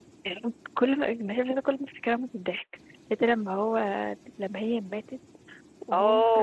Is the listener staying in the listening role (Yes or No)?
No